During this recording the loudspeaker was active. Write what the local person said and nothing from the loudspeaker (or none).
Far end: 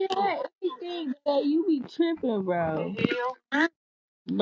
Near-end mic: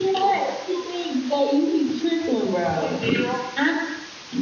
none